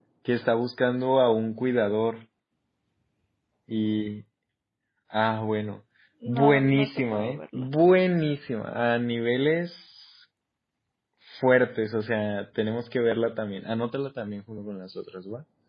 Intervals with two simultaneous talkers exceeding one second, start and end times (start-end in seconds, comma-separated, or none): 6.3-7.7